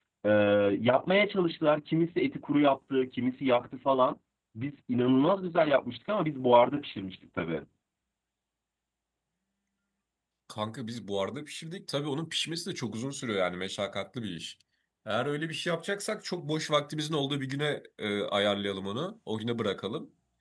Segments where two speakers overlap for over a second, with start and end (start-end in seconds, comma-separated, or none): none